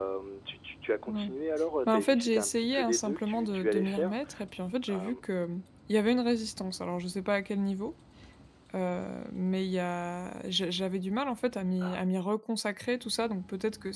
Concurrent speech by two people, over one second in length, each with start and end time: 1.9-4.2

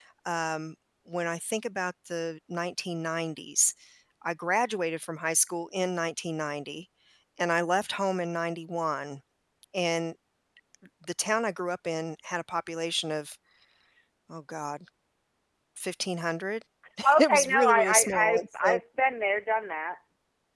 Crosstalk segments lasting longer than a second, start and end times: 17.2-18.8

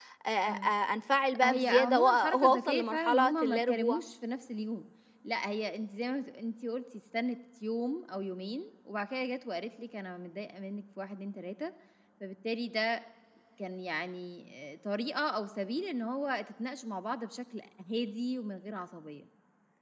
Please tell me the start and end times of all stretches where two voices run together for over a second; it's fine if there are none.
1.3-4.0

